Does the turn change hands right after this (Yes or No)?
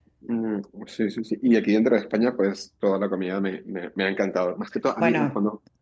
No